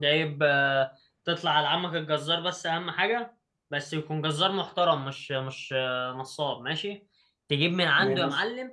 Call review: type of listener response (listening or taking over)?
listening